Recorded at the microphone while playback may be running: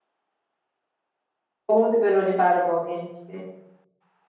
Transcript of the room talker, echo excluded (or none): बहुत बेरोजगार भऽ गेल छे।